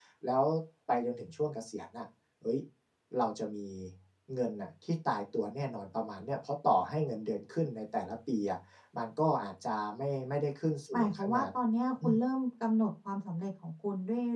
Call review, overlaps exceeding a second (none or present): none